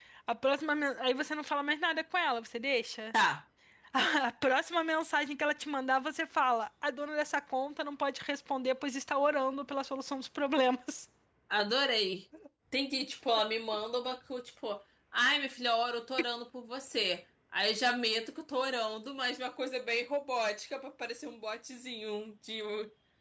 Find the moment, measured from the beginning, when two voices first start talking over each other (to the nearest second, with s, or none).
none